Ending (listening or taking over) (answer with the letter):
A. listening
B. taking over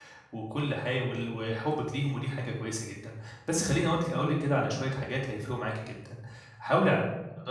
A